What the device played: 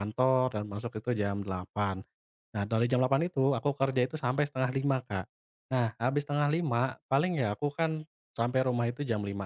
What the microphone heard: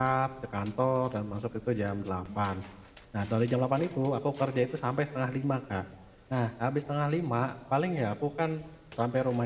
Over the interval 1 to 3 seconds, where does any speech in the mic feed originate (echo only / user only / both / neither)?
echo only